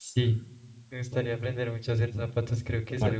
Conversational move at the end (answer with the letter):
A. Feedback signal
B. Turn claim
A